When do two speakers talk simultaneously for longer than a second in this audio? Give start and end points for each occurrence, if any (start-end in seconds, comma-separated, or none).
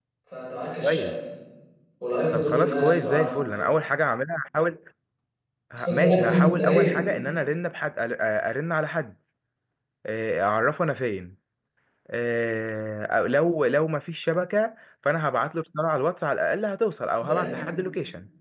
2.3-3.7, 5.8-7.0